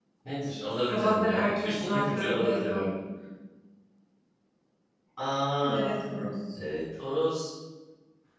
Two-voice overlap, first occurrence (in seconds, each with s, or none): 0.7 s